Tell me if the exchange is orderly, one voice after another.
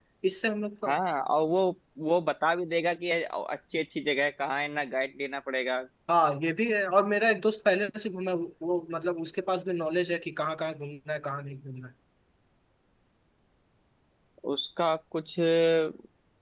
Yes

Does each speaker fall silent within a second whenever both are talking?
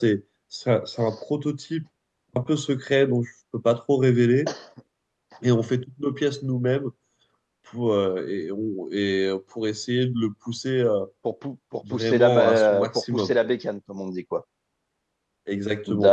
No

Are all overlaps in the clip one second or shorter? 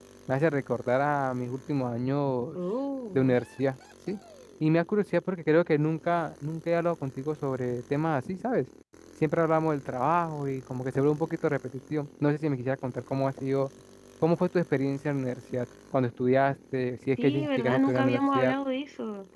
No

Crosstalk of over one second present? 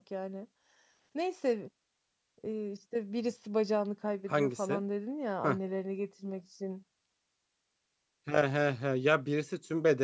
No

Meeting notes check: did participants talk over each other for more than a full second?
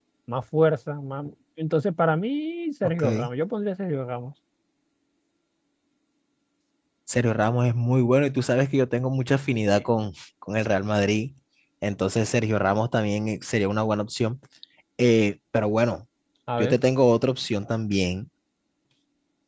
No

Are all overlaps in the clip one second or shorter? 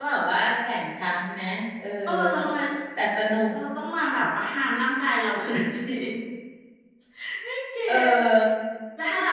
Yes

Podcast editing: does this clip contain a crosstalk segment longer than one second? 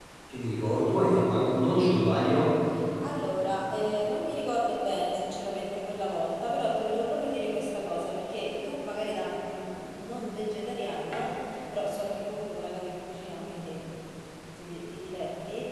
No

